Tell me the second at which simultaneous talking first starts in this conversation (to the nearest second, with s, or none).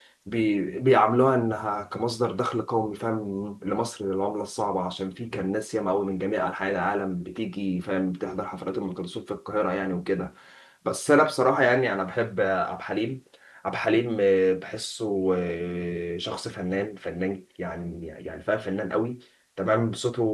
none